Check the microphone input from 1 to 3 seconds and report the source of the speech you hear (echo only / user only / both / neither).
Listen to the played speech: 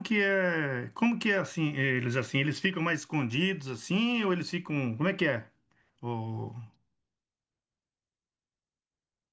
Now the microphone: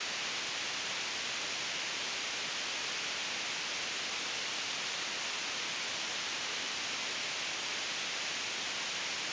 neither